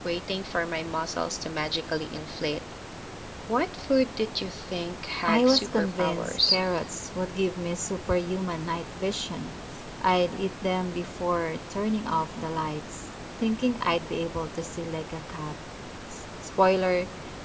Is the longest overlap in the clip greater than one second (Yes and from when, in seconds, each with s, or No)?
Yes, from 5.2 s